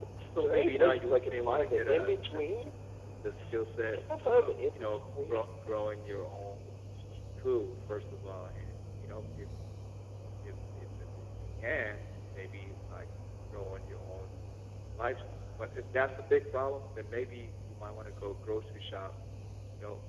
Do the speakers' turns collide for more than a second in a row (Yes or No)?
Yes